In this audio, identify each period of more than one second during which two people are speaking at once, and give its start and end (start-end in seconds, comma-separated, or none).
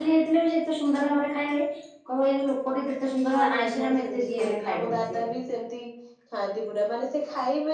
3.3-5.2